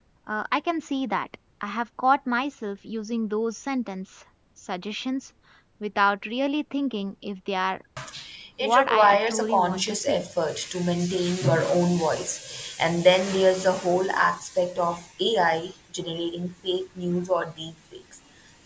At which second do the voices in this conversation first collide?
8.6 s

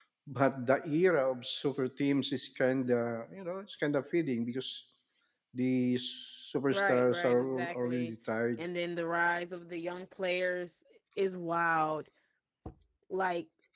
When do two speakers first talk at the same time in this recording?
6.7 s

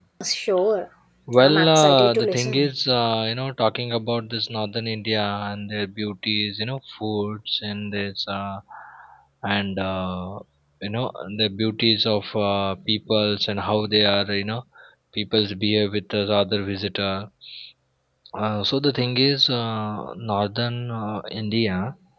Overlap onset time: 1.4 s

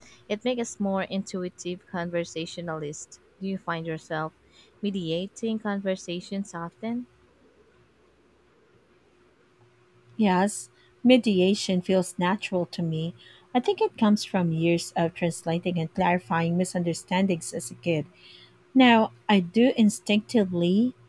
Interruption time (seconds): none

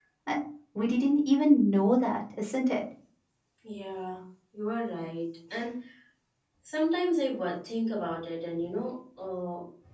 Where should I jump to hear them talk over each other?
none

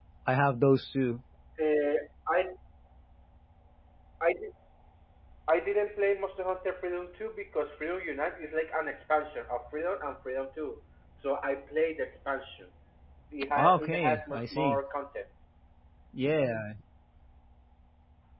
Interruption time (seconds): 13.6 s

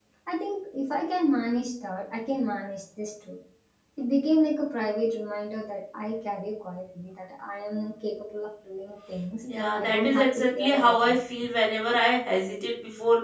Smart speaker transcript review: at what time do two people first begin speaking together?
9.4 s

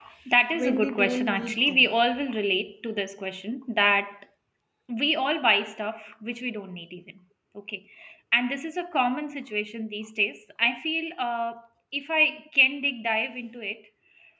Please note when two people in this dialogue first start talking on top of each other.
0.5 s

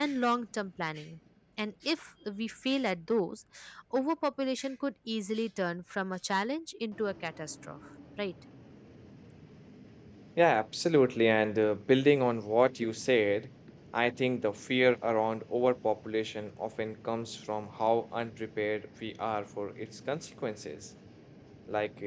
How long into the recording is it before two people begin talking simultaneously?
none

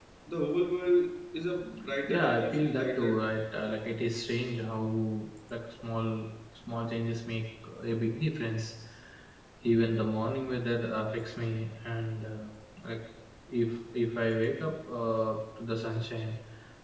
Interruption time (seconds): 2.1 s

